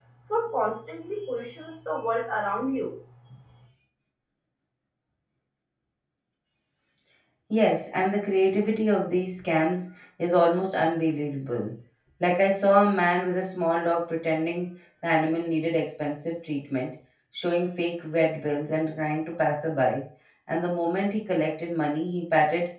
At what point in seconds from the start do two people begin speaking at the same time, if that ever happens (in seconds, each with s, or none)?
none